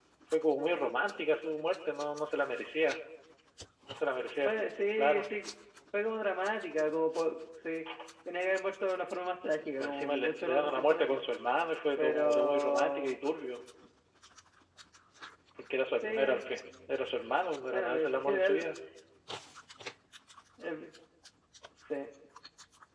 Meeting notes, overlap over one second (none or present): present